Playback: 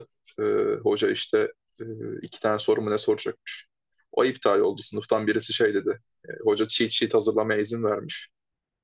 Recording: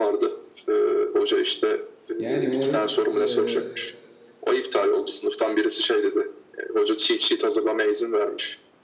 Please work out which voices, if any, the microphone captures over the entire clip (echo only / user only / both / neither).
both